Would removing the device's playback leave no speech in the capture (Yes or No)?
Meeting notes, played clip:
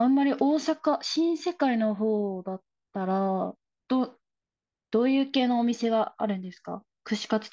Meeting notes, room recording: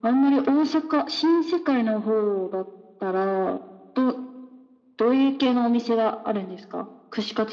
Yes